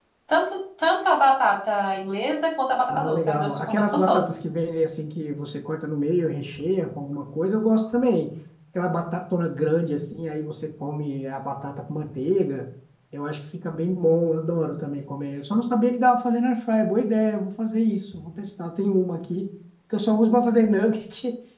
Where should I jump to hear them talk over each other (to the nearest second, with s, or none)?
3 s